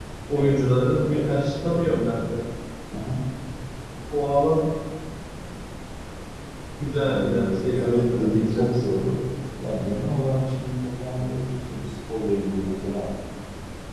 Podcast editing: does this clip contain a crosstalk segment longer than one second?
Yes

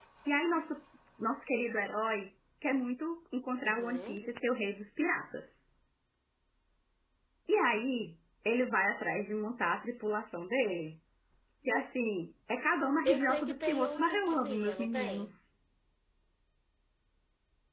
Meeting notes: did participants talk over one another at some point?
Yes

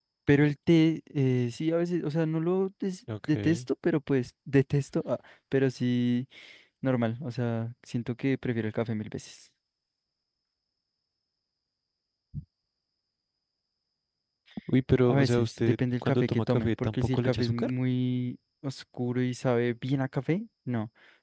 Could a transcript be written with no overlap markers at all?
No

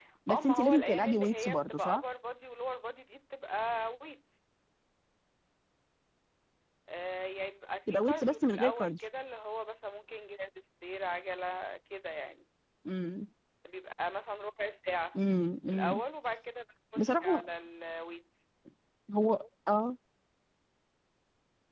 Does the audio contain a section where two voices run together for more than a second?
Yes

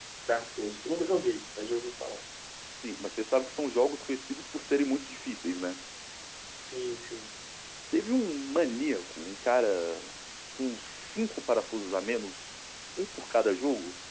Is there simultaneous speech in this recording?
No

